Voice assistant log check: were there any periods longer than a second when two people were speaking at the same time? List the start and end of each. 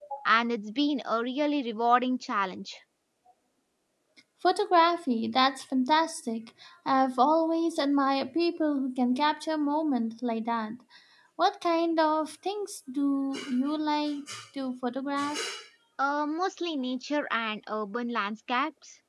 none

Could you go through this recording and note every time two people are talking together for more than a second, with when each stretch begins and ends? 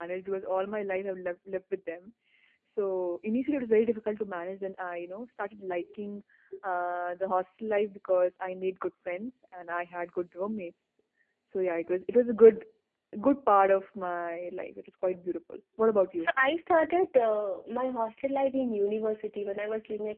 none

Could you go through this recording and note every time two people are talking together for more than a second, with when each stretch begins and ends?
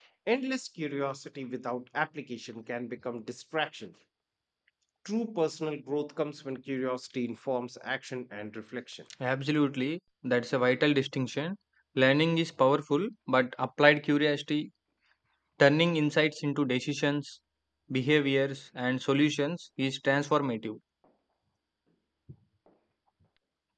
none

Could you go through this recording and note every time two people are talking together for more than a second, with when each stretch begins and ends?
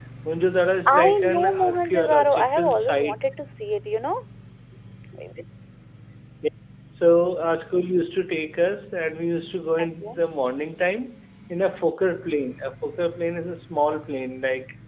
0.9-3.1

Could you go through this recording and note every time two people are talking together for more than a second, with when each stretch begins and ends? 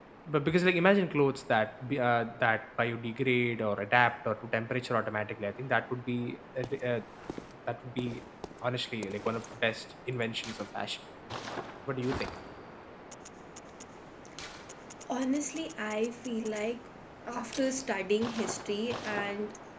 none

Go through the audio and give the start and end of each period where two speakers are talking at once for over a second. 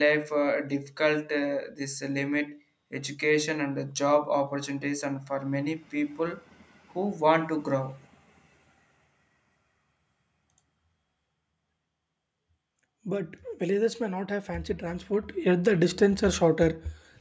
none

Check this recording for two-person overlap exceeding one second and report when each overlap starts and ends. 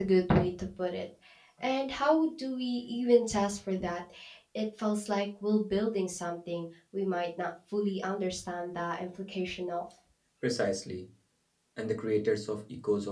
none

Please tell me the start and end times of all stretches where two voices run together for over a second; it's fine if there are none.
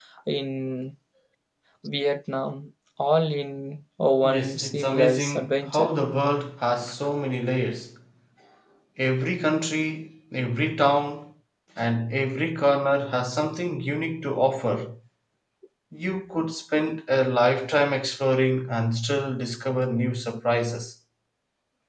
4.2-5.9

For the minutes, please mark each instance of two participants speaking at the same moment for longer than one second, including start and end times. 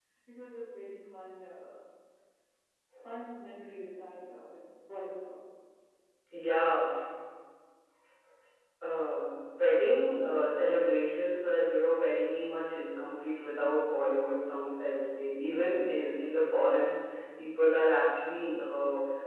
none

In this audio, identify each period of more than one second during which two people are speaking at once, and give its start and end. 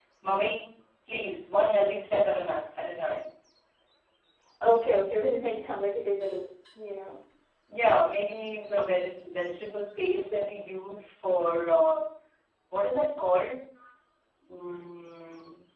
none

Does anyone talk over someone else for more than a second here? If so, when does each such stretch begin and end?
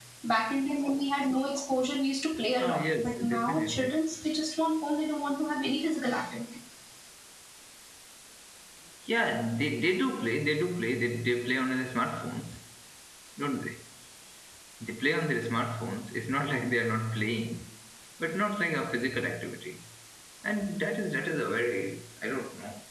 2.6-3.9

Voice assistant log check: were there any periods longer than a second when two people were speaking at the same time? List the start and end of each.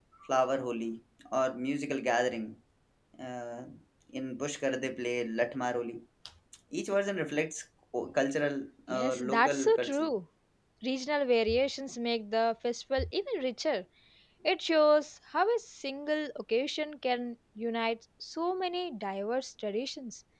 8.9-10.1

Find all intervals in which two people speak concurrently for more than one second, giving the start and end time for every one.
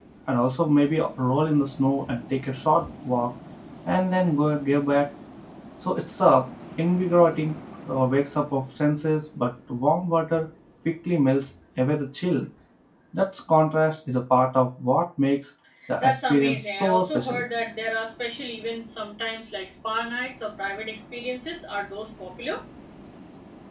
16.0-17.4

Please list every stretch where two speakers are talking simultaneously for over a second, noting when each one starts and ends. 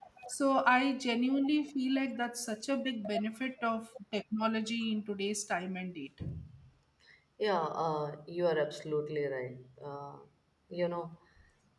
none

